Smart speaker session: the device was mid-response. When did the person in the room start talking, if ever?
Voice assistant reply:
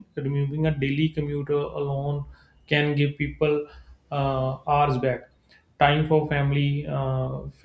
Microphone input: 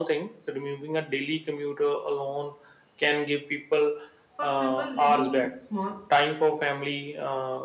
4.3 s

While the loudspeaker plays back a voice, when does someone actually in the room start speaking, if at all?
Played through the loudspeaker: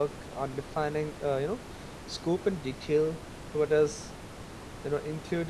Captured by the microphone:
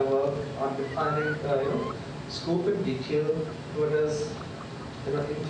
none

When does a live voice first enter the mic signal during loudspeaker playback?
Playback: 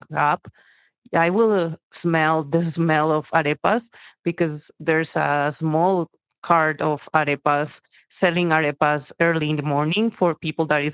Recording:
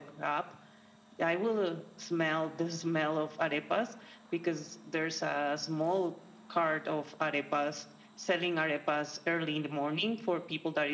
none

